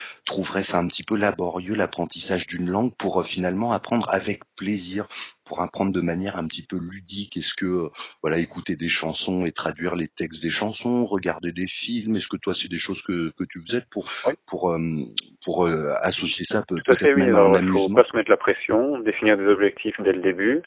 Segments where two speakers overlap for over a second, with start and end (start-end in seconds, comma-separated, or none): 16.8-18.0